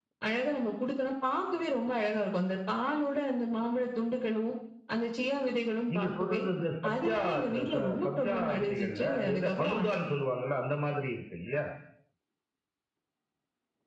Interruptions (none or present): present